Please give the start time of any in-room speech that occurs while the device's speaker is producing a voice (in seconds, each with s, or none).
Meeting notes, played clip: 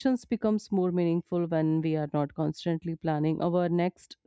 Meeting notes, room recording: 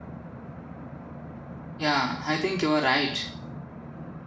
1.8 s